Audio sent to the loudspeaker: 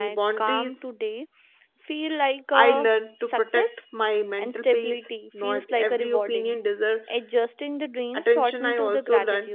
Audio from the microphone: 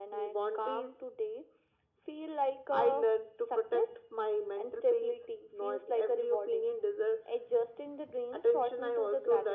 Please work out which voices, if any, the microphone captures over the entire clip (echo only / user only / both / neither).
echo only